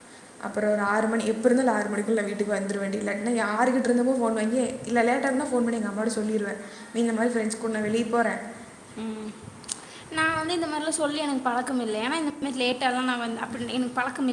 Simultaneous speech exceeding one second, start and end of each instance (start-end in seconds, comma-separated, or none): none